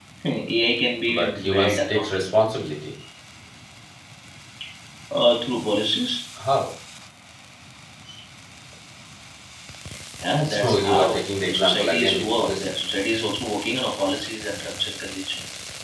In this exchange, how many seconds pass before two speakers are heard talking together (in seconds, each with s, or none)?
1.1 s